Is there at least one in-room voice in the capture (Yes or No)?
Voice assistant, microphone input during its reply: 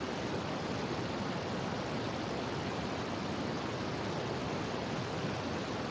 No